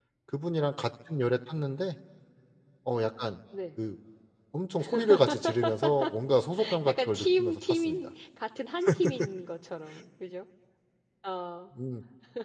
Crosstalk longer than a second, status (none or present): present